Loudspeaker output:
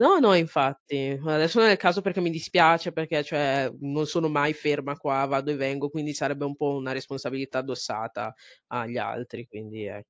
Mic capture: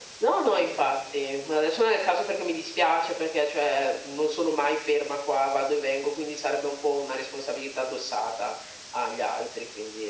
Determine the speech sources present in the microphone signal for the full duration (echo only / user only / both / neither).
echo only